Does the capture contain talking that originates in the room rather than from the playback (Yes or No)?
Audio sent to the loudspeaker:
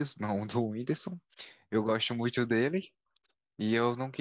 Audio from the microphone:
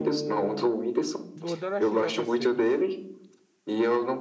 Yes